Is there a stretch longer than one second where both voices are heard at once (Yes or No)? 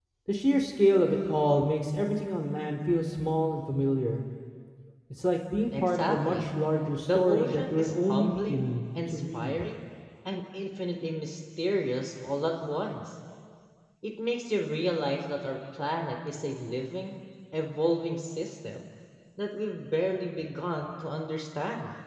Yes